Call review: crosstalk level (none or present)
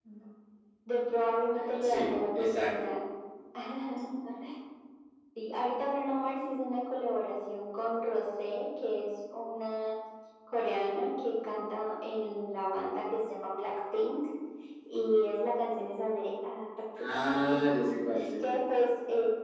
present